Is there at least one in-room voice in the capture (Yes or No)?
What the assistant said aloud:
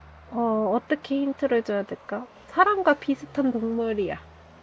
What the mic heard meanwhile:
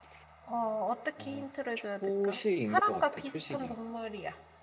Yes